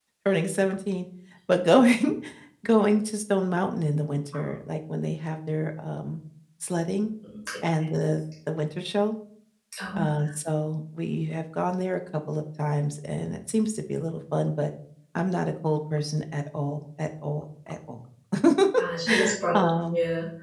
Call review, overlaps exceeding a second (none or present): none